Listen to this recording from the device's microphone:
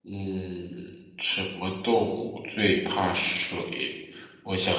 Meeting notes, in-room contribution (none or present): none